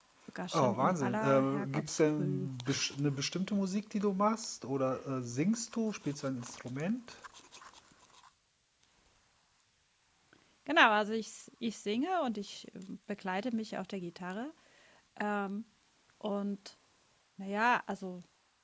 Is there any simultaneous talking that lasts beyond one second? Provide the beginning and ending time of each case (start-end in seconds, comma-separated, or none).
0.5-2.5